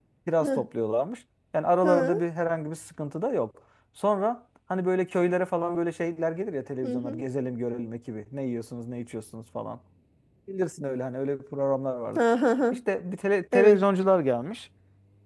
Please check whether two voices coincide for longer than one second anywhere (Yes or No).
No